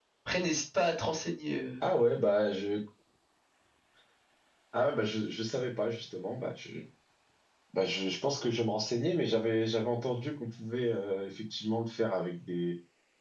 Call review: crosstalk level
none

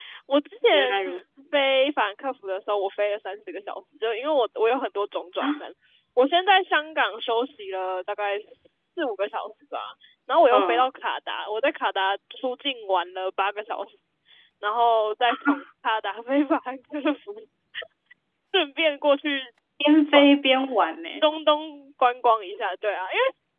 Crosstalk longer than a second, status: none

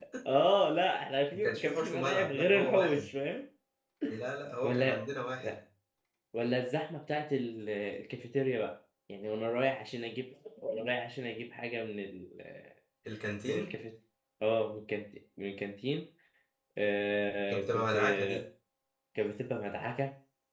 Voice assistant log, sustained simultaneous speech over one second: present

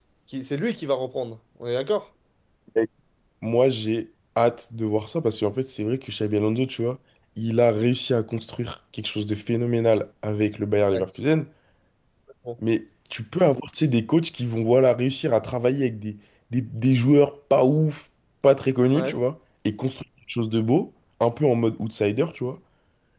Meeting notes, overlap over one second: none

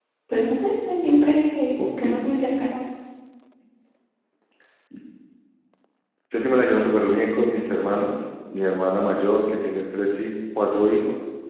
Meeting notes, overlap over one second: none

